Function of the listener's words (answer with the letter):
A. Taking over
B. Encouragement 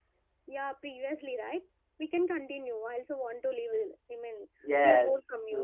A